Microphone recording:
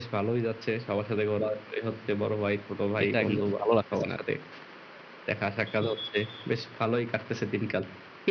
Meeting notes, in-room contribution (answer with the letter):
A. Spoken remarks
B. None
A